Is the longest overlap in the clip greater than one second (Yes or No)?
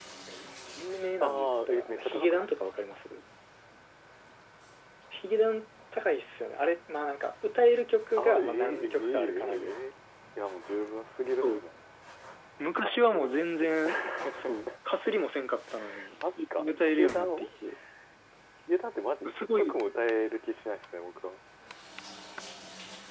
Yes